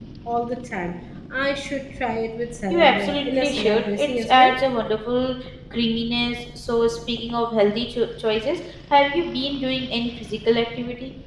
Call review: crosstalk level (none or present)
present